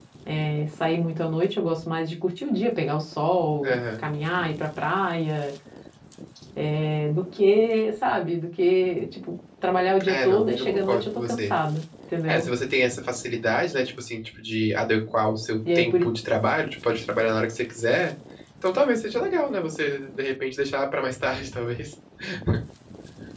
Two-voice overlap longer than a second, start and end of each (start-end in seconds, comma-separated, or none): 10.0-11.5